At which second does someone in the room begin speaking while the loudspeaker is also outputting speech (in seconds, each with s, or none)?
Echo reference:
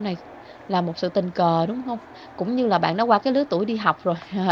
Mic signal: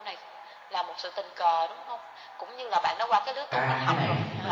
3.5 s